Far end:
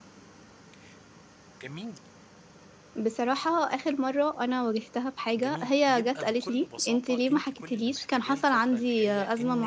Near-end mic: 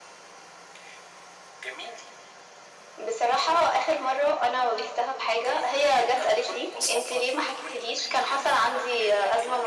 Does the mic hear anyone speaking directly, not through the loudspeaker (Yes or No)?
No